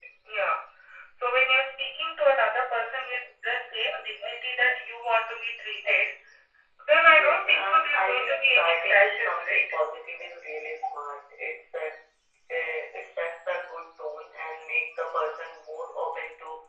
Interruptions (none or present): present